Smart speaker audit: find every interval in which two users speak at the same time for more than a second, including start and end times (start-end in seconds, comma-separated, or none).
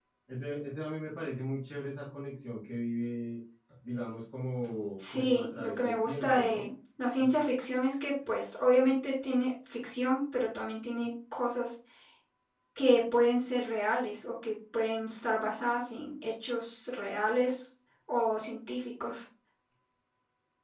5.0-6.7